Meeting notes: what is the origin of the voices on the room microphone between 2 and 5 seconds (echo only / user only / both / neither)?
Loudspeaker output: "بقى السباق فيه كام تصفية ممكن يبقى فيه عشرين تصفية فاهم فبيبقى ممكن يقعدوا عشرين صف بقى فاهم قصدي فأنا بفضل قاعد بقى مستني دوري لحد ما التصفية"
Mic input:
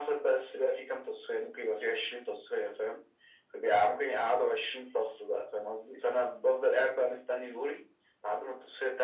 echo only